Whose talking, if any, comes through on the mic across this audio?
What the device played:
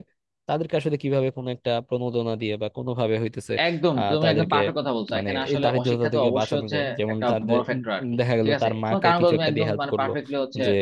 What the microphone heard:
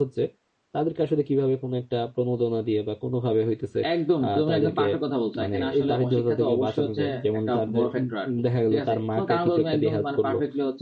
echo only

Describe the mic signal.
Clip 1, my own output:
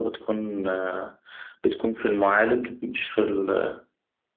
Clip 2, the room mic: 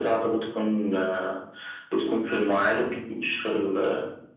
echo only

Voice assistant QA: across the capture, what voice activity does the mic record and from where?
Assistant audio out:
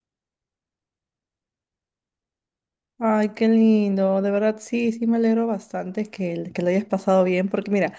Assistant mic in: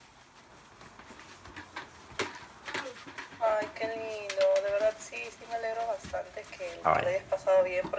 both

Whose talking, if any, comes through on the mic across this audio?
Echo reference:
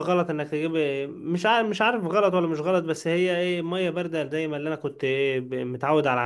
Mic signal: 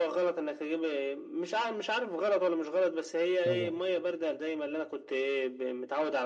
both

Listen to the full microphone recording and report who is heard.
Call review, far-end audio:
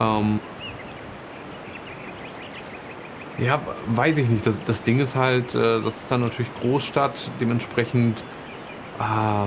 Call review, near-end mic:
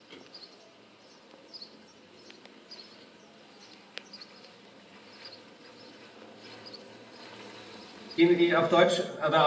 user only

